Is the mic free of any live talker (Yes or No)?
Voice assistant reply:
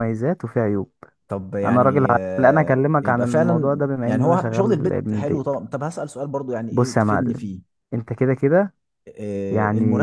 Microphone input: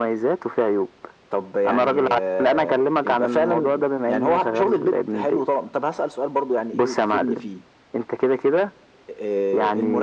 Yes